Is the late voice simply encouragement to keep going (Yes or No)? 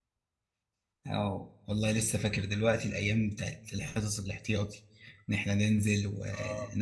No